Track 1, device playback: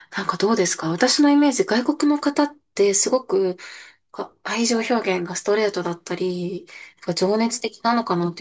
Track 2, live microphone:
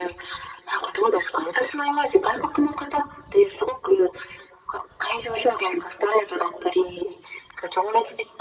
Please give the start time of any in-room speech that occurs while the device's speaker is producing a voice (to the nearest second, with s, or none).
none